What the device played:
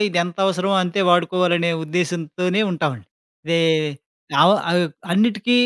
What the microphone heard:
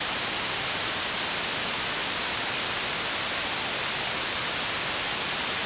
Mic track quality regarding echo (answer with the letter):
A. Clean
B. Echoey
A